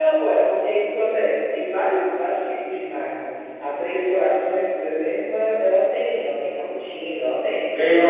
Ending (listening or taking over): taking over